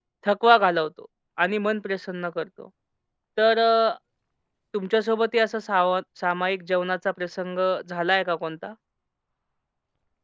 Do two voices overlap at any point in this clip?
No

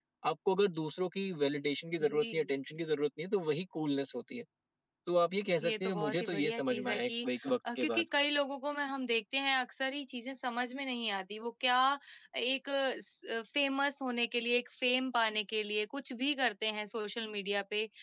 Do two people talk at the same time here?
Yes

